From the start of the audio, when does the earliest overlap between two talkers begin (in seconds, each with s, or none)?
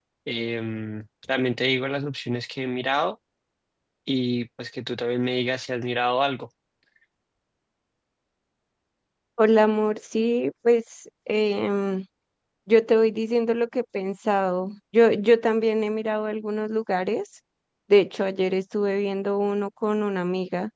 none